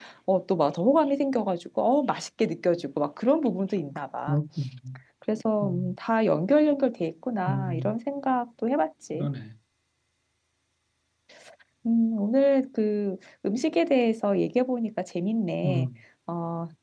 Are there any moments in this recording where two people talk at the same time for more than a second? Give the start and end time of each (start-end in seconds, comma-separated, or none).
none